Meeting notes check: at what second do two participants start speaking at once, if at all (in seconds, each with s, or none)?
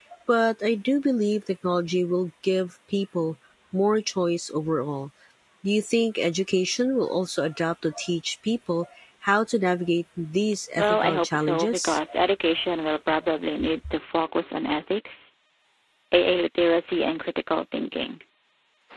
10.8 s